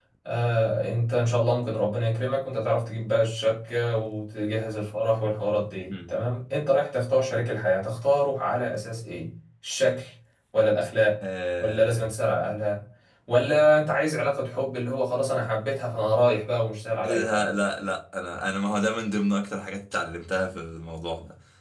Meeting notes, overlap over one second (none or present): none